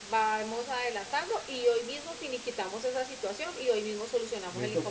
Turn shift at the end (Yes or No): Yes